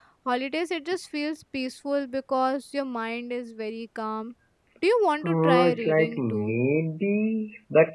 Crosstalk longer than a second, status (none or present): present